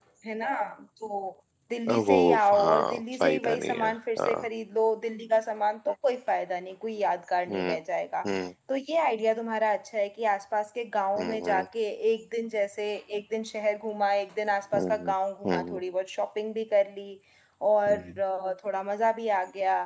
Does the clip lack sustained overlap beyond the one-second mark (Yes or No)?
No